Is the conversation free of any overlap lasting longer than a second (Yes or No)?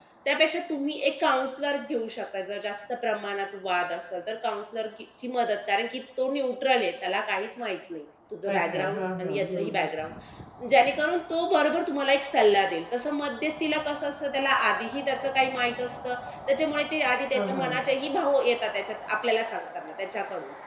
No